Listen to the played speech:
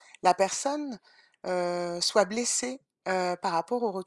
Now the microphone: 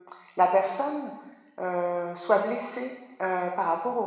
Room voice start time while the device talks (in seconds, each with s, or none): none